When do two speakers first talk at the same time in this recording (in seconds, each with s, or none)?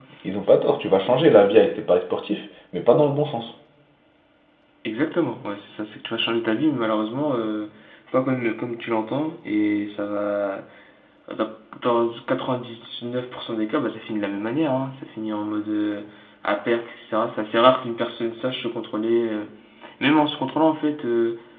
none